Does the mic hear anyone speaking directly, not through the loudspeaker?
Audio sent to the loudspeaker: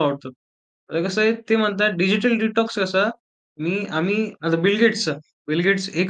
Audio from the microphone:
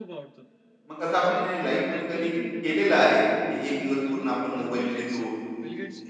Yes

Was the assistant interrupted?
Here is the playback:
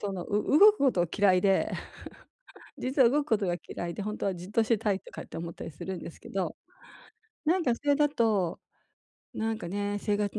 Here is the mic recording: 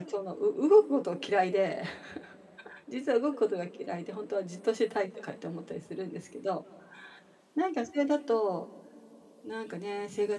No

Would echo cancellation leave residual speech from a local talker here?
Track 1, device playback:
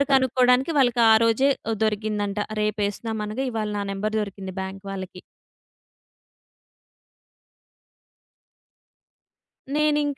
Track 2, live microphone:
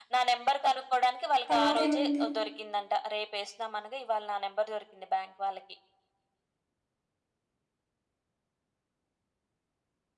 Yes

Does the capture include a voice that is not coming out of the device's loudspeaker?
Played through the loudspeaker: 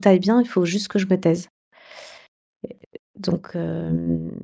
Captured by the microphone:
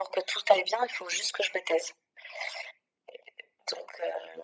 No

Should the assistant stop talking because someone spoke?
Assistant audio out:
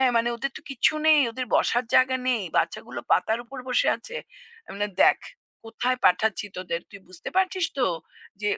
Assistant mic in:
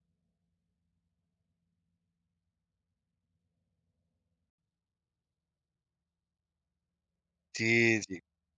Yes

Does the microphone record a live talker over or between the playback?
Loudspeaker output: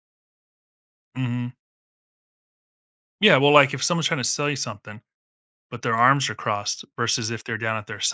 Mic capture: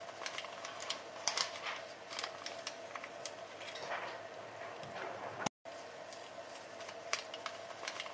No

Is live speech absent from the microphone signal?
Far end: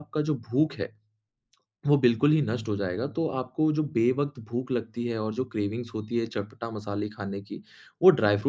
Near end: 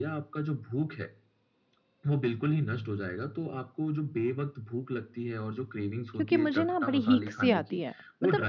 No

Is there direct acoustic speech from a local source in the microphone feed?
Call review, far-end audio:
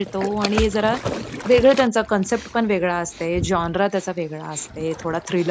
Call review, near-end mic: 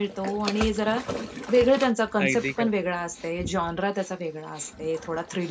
Yes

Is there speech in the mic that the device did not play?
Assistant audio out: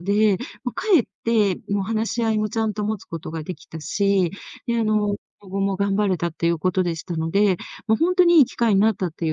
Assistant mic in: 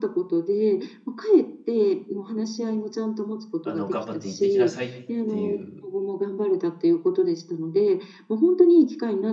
Yes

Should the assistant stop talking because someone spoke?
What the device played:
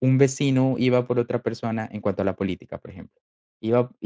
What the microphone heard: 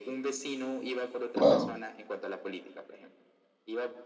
Yes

